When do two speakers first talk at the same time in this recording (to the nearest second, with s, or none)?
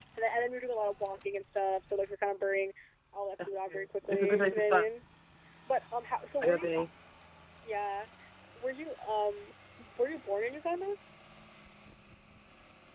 3 s